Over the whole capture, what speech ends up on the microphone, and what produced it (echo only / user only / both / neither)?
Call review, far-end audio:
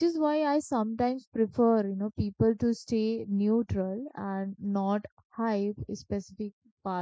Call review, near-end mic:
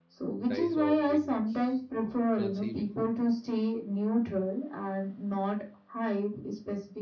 both